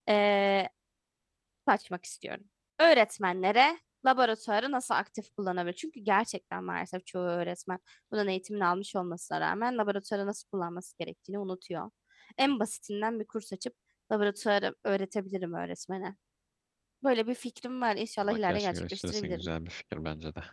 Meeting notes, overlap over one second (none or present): present